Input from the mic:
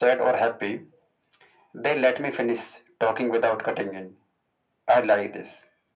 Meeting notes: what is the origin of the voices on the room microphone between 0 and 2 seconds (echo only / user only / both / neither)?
echo only